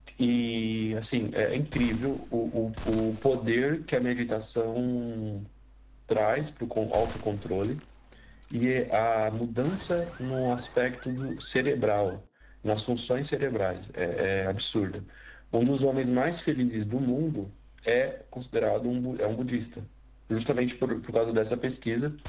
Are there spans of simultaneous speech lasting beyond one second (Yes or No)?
No